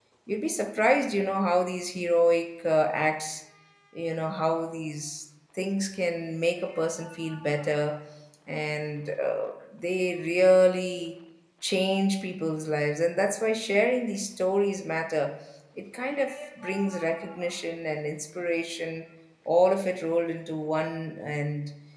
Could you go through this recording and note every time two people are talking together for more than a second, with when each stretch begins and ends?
none

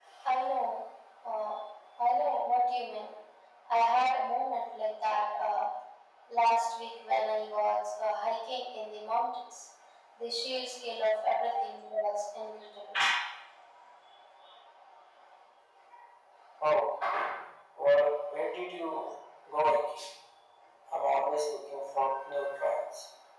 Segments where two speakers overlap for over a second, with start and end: none

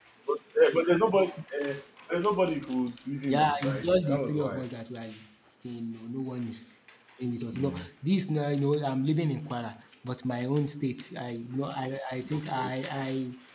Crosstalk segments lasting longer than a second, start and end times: 3.3-4.6

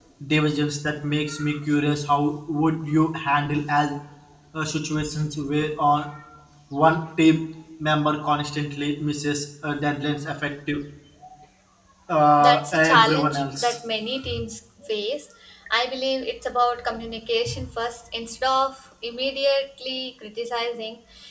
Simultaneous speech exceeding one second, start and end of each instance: 12.4-13.8

